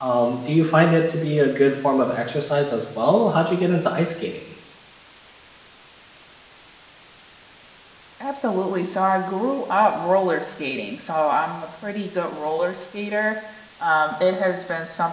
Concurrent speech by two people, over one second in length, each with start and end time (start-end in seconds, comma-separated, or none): none